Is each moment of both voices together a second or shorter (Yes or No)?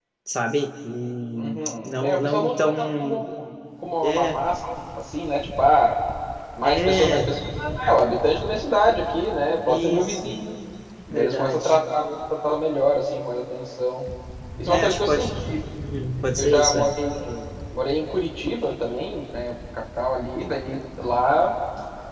No